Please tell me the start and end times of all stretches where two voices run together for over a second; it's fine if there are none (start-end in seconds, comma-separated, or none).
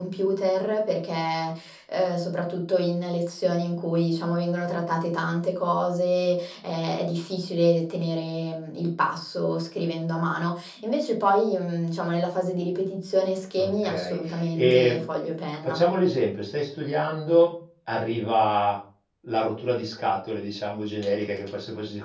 13.6-15.0